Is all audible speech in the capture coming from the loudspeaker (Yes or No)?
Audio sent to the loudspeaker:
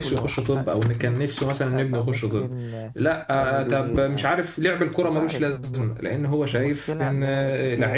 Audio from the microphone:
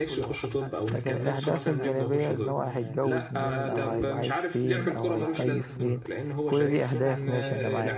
No